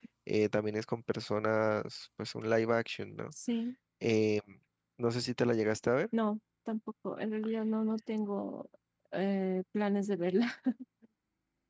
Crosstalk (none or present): none